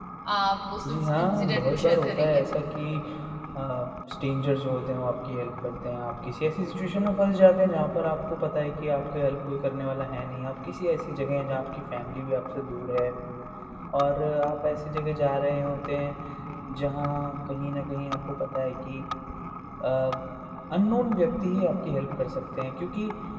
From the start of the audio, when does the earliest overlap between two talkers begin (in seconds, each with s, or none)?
0.8 s